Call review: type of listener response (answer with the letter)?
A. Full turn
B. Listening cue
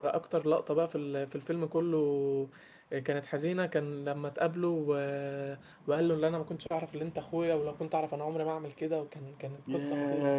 A